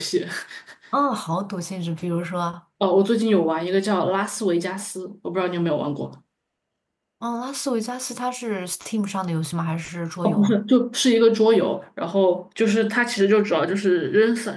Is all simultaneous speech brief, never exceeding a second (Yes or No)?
Yes